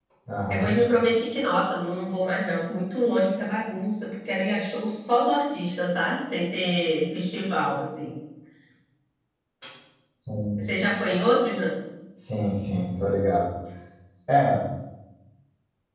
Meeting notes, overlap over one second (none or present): none